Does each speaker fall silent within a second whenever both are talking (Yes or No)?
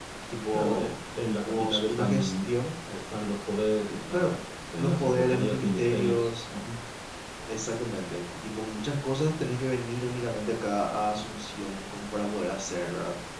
No